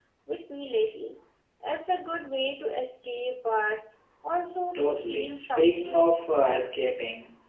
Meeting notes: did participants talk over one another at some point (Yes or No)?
Yes